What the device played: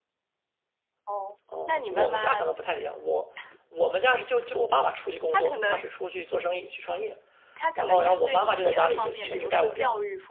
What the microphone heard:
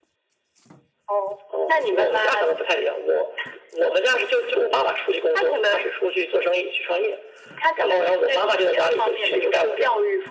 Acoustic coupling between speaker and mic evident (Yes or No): Yes